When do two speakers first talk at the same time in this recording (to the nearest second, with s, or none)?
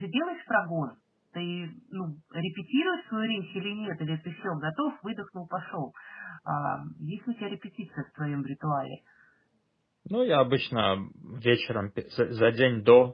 none